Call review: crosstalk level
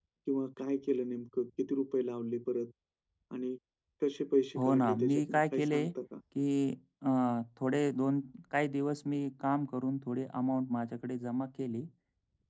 present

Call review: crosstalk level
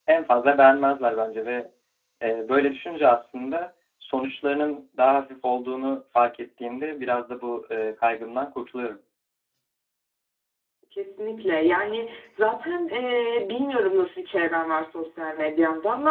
none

